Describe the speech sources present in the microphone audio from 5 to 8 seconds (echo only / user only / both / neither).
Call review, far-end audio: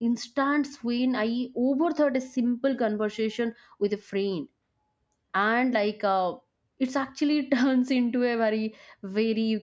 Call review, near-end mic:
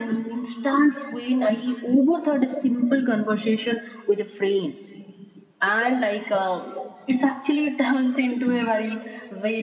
echo only